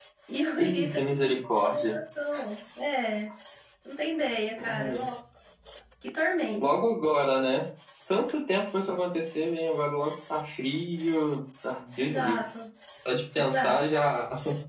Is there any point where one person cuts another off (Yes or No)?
Yes